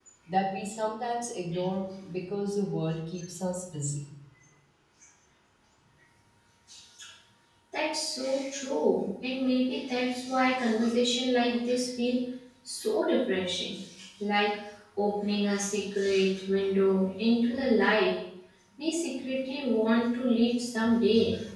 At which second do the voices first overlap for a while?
none

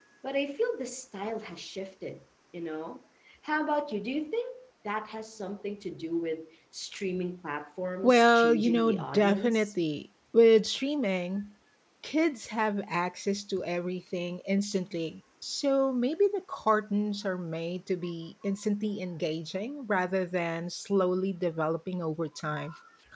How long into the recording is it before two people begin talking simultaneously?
8.0 s

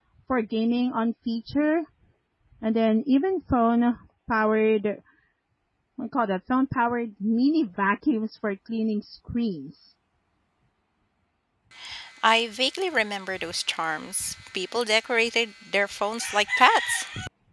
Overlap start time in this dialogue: none

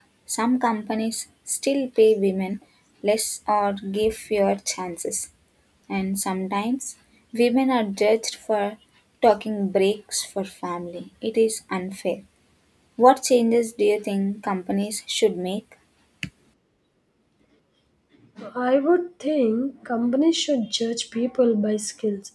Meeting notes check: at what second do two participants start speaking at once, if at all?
none

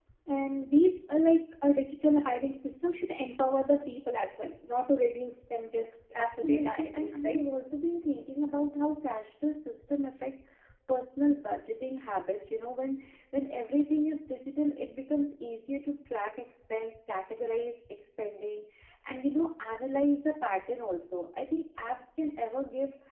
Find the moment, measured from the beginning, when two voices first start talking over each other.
6.2 s

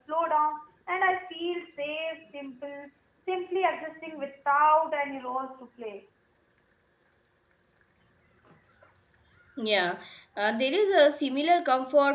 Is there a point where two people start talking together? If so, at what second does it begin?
none

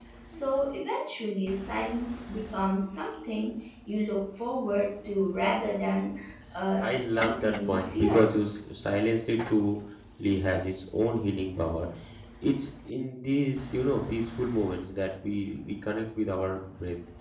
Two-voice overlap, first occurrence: 6.8 s

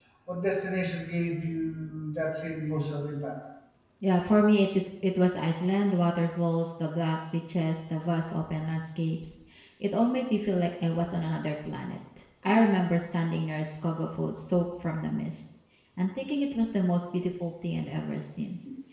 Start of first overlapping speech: none

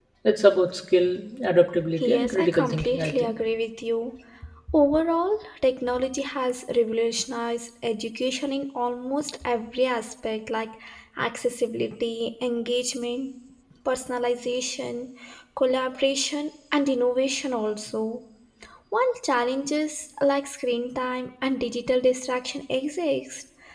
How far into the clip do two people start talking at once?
2.0 s

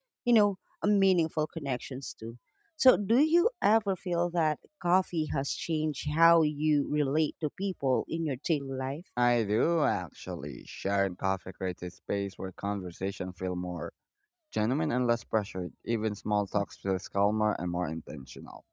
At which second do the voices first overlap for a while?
none

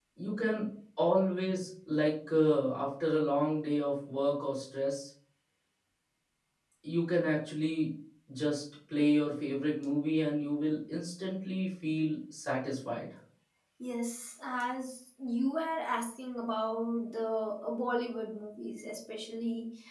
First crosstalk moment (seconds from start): none

